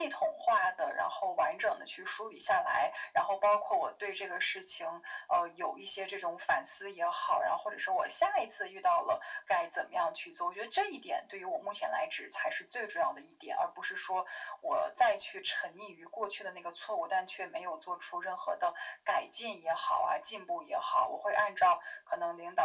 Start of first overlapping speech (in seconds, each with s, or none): none